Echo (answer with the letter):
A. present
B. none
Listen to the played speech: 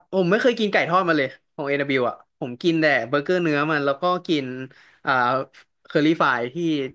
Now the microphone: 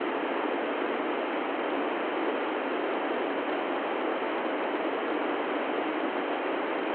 B